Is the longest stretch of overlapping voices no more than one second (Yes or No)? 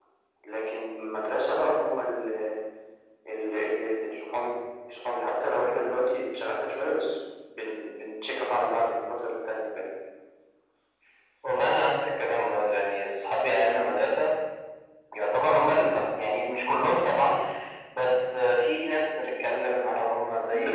Yes